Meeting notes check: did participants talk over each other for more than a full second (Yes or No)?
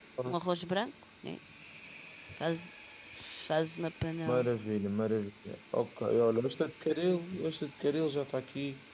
No